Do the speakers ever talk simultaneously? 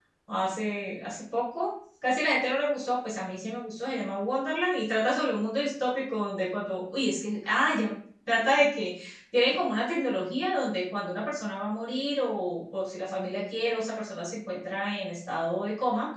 No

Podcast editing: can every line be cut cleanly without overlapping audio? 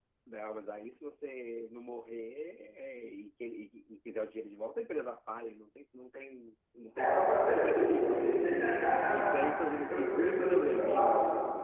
No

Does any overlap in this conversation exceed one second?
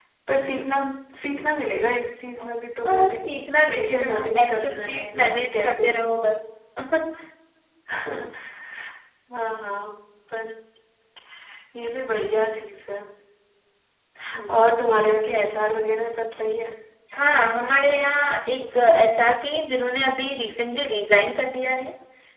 Yes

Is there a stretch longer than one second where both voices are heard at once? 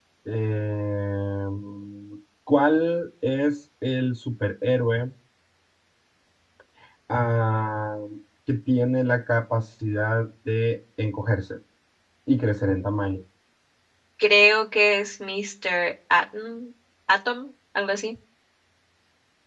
No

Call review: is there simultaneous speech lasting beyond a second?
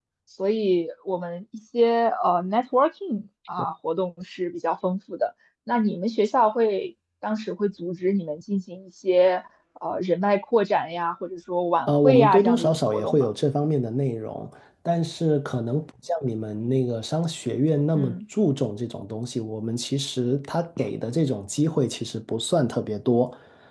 Yes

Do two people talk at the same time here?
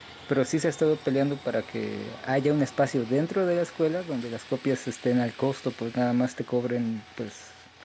No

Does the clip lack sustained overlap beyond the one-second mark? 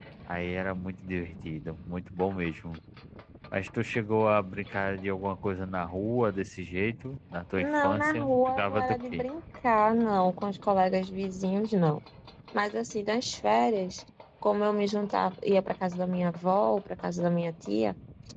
No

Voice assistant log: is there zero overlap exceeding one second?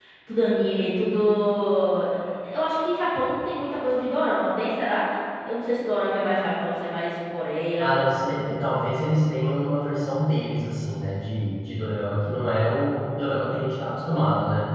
Yes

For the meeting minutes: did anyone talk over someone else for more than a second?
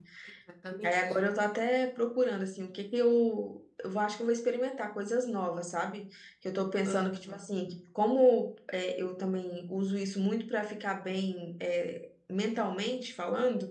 No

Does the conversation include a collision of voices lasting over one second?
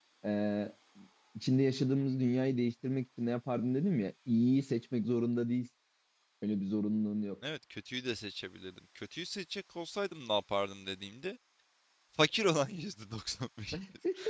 No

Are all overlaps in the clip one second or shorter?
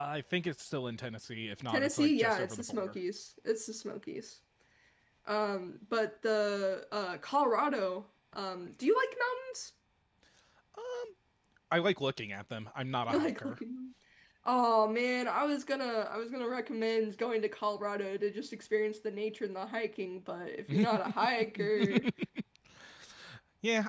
No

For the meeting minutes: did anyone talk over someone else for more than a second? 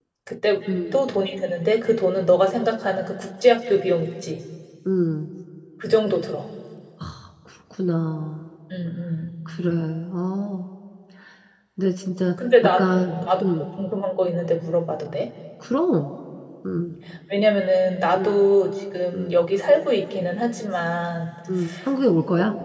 No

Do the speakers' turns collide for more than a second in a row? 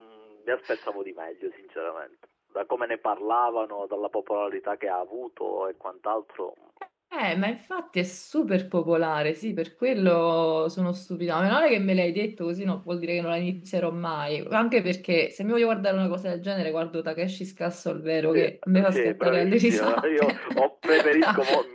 Yes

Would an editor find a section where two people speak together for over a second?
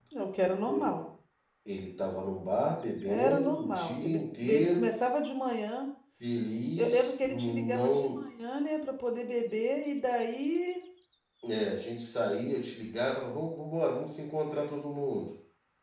Yes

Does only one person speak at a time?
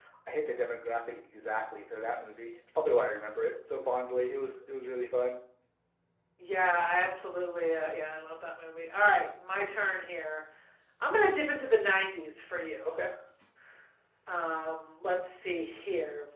Yes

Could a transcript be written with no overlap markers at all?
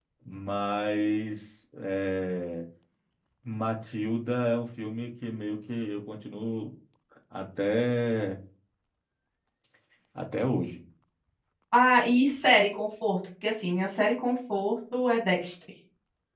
Yes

